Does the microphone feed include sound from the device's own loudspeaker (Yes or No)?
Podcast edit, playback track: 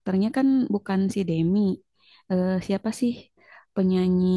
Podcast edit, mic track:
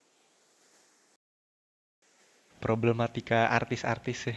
No